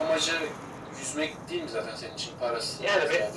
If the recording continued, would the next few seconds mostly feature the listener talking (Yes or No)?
Yes